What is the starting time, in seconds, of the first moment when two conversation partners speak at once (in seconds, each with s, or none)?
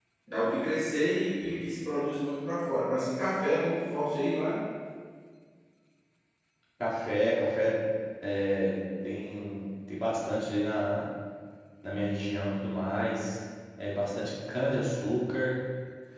none